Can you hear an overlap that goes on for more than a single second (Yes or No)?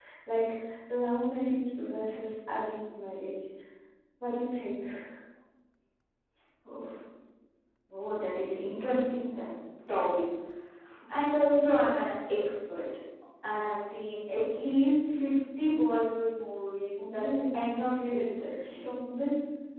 Yes